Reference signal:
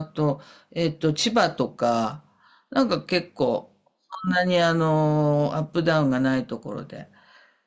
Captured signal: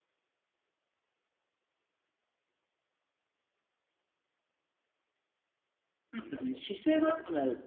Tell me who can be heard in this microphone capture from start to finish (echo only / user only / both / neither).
user only